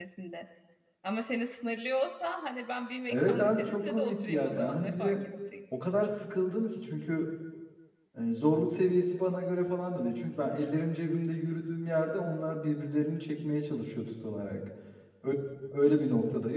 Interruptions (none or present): present